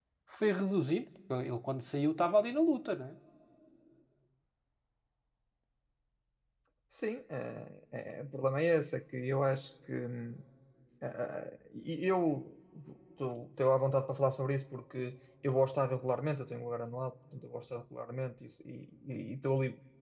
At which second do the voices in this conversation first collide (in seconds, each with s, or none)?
none